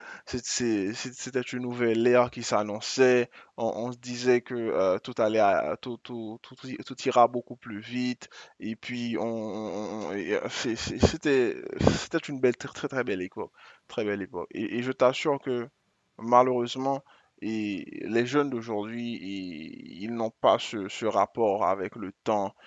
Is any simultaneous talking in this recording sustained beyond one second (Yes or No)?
No